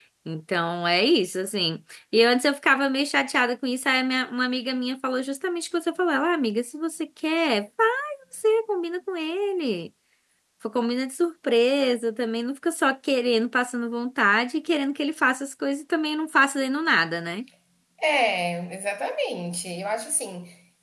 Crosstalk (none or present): none